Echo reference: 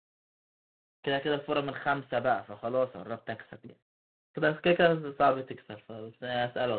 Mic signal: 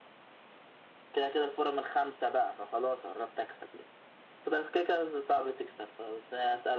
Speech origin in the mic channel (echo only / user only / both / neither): echo only